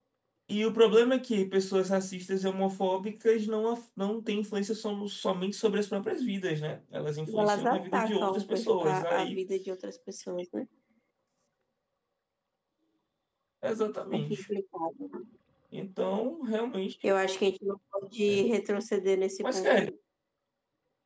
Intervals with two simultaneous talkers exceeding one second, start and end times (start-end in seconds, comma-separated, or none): 7.3-9.4